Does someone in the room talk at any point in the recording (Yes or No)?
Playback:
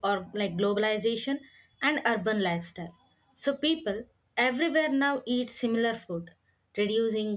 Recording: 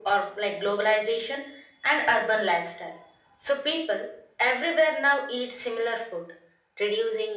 No